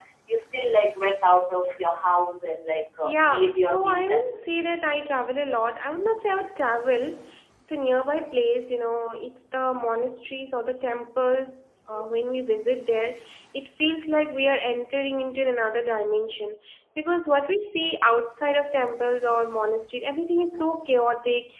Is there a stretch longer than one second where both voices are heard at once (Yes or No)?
Yes